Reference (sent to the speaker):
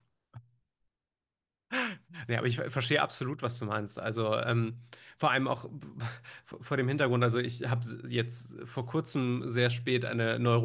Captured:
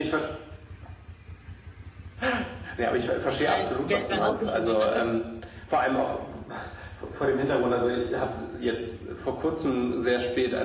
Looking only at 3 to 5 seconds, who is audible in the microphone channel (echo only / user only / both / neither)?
both